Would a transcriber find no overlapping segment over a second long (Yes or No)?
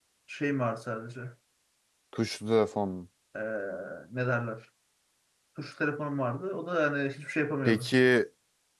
Yes